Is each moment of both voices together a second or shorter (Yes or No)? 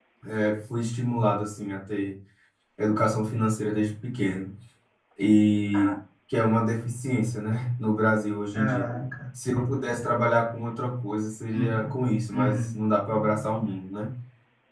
Yes